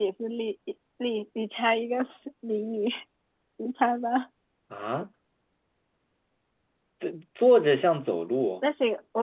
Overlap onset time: none

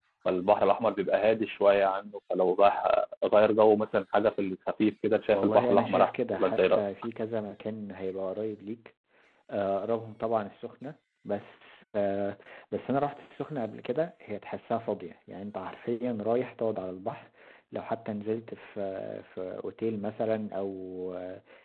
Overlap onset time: 5.3 s

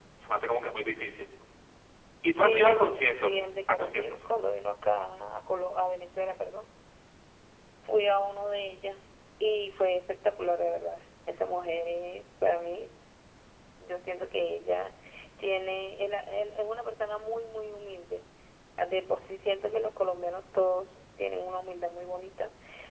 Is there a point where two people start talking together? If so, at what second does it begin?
2.2 s

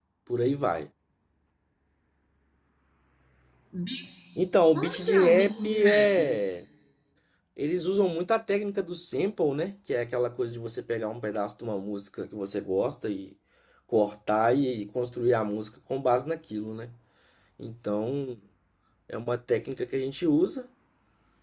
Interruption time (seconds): 4.7 s

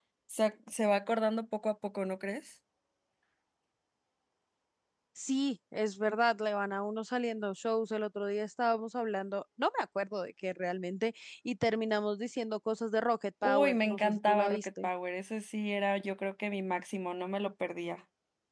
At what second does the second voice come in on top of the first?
13.4 s

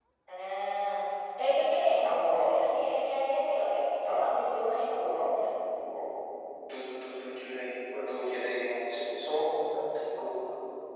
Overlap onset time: none

